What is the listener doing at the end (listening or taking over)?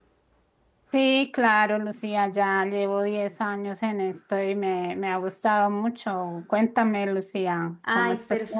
taking over